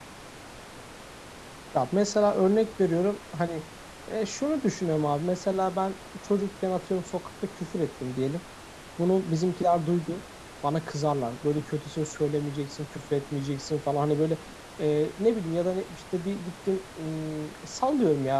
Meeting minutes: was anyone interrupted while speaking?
No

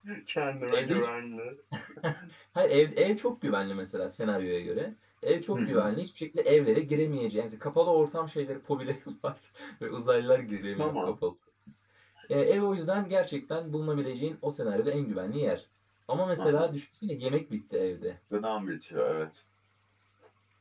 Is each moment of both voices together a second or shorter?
Yes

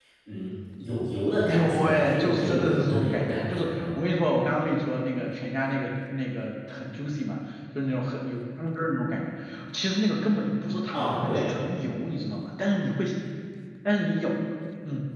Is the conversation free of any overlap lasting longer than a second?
No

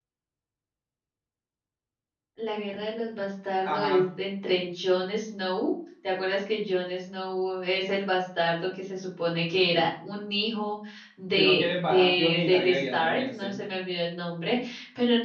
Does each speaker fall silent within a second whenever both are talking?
No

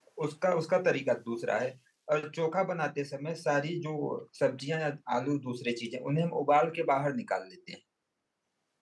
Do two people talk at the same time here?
No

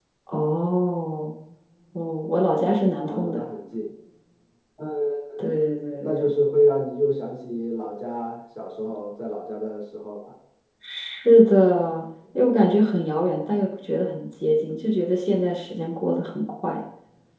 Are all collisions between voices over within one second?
Yes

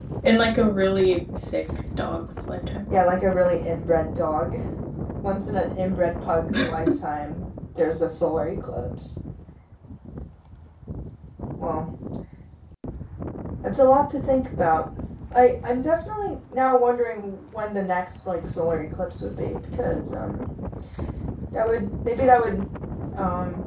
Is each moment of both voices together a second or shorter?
Yes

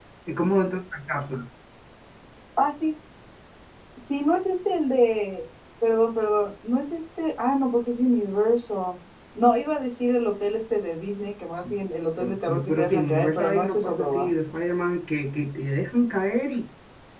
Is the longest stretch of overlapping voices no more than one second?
No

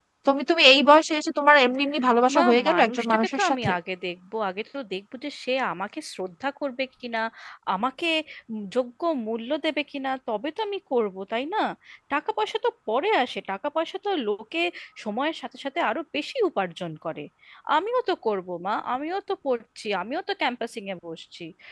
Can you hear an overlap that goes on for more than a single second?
Yes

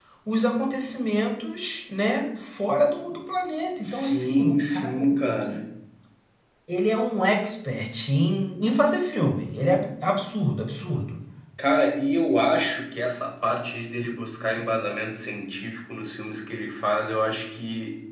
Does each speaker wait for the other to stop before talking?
No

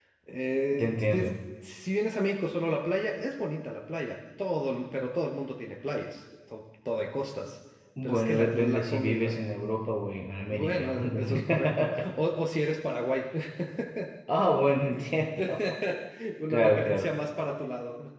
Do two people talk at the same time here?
Yes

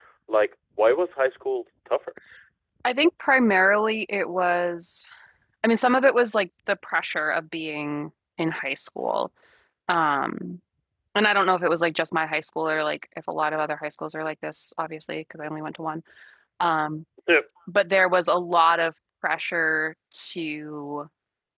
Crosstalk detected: No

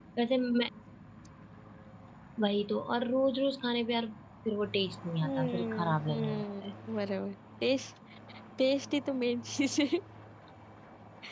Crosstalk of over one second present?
Yes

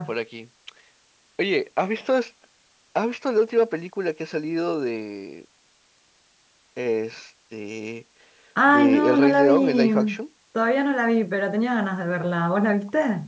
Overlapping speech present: Yes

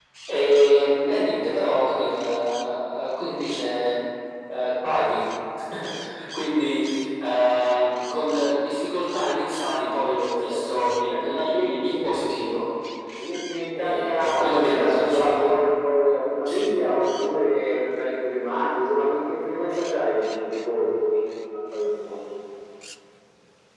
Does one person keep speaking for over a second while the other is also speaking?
Yes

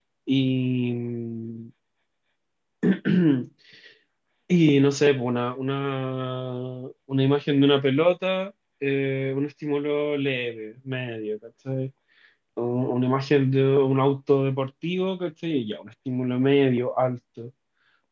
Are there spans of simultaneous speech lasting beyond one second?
No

